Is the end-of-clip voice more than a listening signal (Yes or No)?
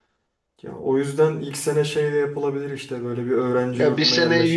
Yes